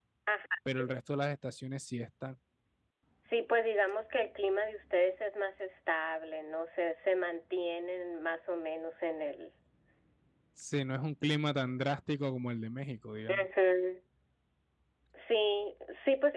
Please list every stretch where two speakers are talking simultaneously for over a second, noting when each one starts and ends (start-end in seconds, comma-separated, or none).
none